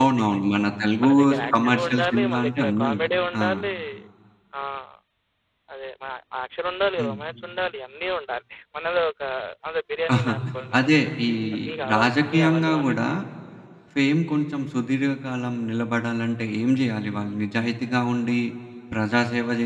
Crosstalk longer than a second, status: present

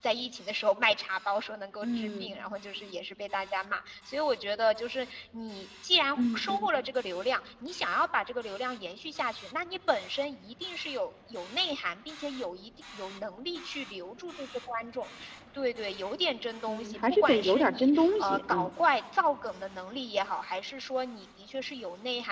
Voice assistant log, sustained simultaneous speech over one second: present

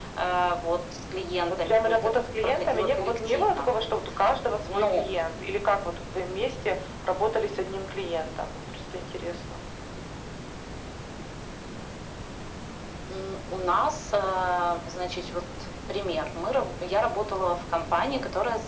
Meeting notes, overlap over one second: present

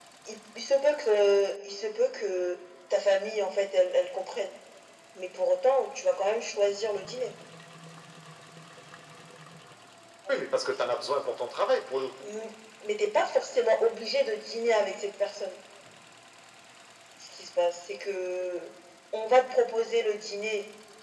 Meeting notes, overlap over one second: none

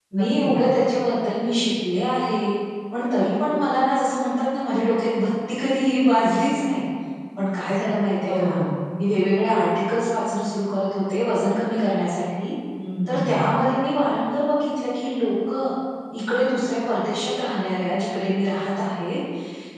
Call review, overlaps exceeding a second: none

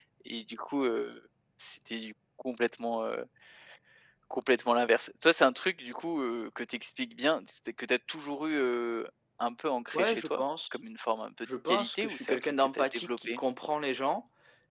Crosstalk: present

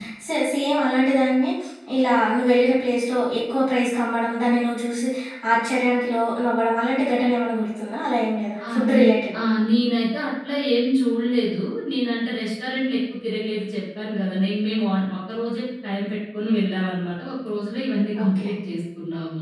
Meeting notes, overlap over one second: none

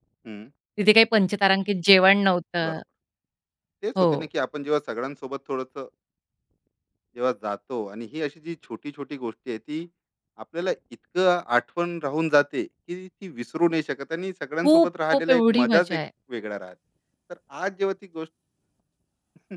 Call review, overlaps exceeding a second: present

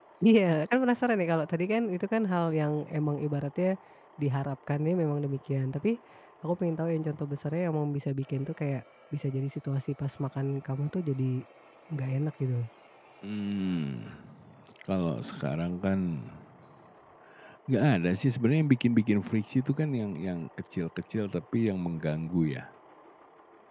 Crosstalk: none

